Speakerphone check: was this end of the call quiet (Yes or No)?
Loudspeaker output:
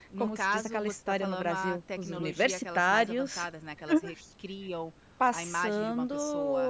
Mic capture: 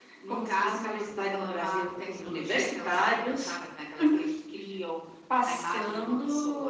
Yes